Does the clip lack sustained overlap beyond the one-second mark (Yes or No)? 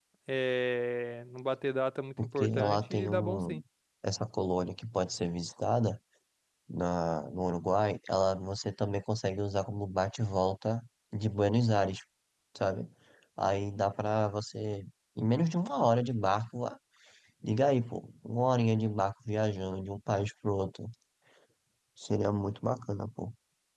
No